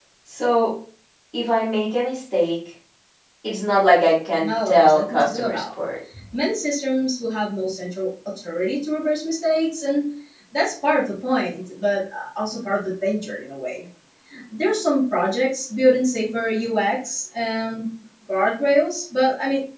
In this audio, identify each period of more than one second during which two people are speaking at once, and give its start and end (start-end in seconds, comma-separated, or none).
4.4-5.6